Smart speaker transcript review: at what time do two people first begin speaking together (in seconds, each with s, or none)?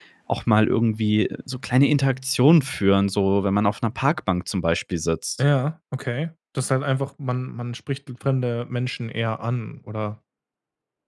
none